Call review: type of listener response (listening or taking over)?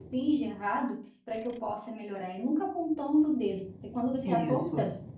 listening